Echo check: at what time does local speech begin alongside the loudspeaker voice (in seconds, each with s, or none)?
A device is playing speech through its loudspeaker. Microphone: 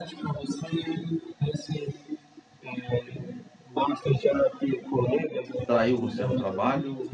5.6 s